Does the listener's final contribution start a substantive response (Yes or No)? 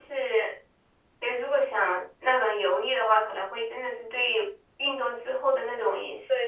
Yes